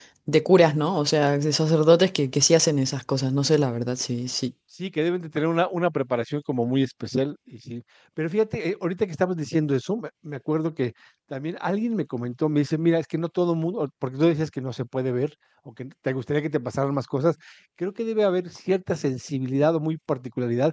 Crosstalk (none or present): none